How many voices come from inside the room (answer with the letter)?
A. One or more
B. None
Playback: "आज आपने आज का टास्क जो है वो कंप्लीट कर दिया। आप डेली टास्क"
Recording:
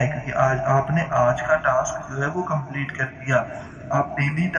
B